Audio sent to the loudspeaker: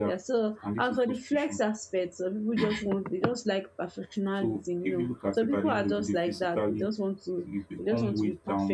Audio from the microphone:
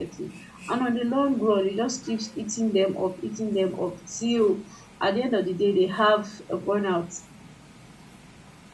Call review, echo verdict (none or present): none